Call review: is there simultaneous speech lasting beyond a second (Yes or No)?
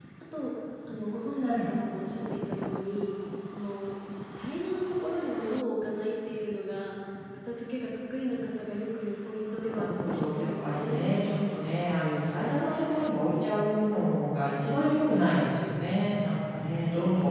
Yes